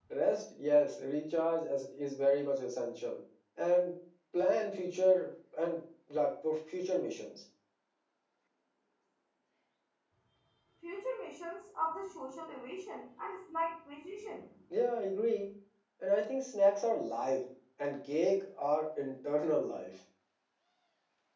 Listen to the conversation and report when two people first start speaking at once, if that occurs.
none

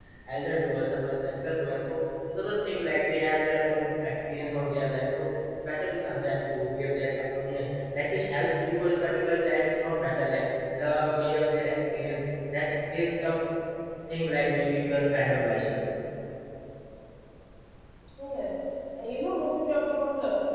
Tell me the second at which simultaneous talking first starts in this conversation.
none

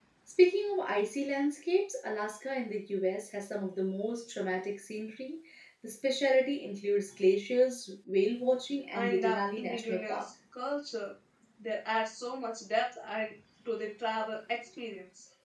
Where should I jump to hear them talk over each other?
8.9 s

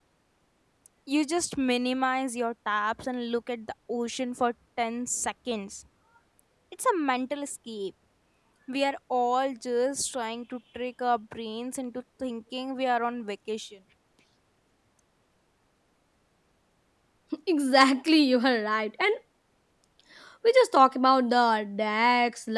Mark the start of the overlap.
none

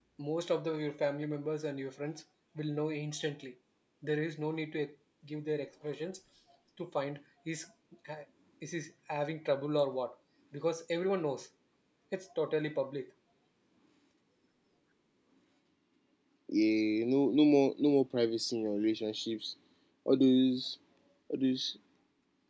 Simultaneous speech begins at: none

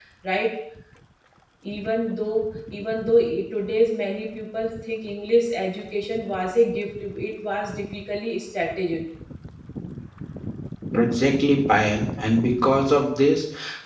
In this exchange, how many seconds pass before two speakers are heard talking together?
none

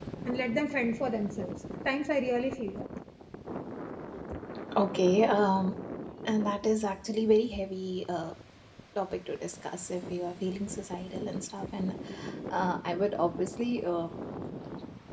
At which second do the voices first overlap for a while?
none

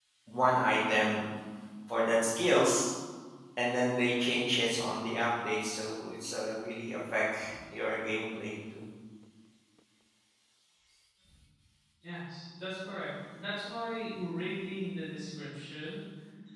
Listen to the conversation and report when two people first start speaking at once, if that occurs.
none

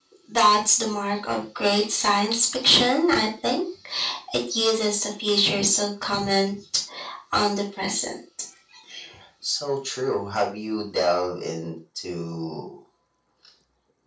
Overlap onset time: none

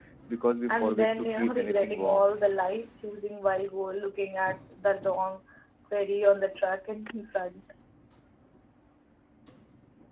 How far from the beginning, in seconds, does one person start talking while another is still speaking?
0.7 s

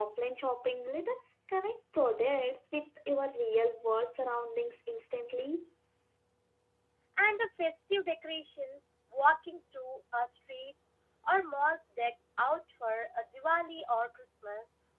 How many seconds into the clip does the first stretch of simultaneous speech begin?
none

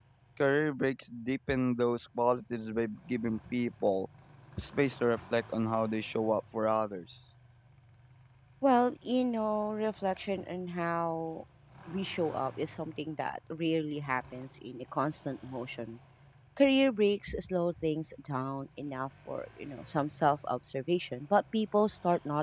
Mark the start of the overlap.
none

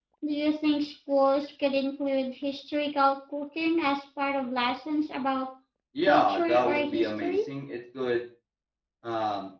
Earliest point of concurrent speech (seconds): 6.1 s

